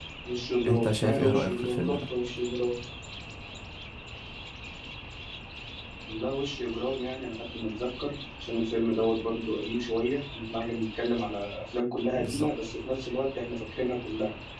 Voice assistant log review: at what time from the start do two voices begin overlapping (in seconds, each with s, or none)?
0.7 s